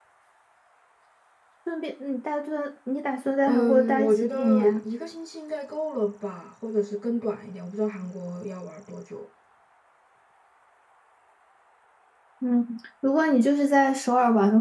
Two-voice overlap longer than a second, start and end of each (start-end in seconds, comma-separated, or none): 3.4-4.8